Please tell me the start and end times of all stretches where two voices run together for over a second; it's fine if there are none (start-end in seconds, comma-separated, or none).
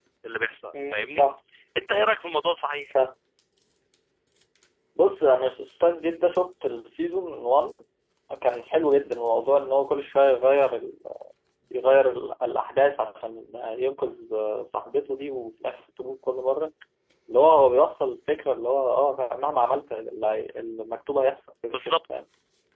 none